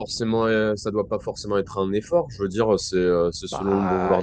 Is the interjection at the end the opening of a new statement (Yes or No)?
No